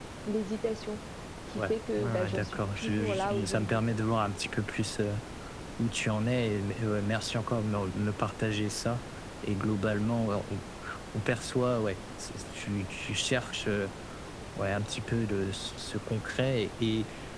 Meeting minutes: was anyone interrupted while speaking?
Yes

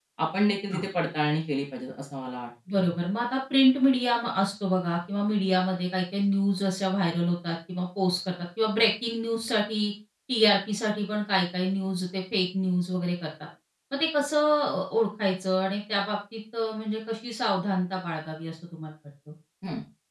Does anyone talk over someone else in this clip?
No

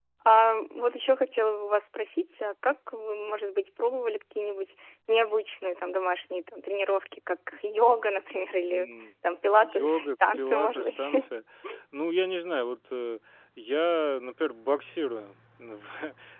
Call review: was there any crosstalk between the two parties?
Yes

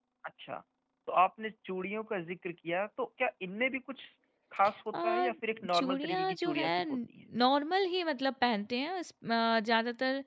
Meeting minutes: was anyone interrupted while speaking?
Yes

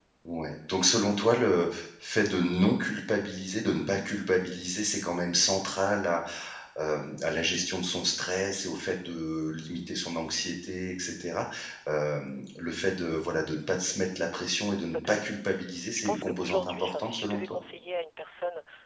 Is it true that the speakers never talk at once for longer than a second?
No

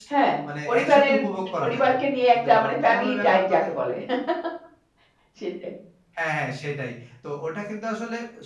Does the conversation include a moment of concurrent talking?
Yes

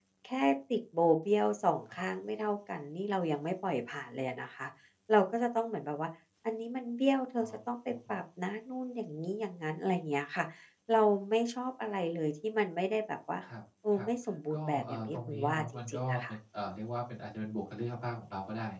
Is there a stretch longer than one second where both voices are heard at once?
Yes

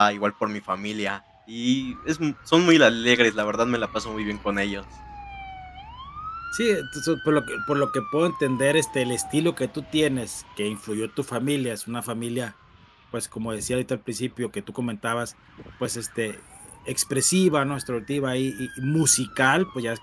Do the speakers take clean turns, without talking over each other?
Yes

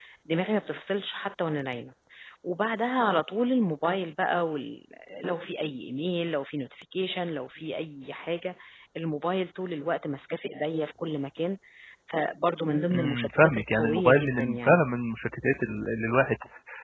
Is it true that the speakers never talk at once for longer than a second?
No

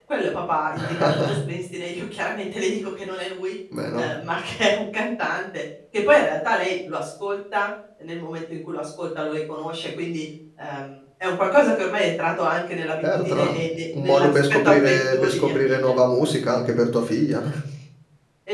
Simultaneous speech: Yes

